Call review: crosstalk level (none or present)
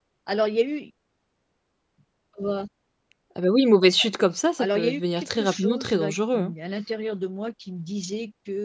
present